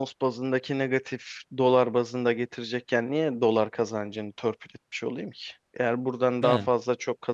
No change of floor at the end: Yes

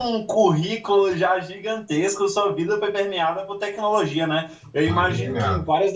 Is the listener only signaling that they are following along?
Yes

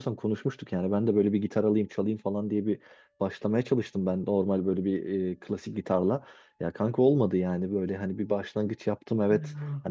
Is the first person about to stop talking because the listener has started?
No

